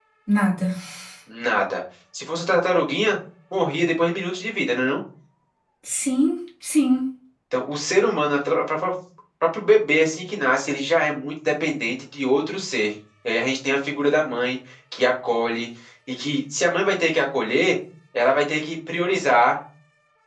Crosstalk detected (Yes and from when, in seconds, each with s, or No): No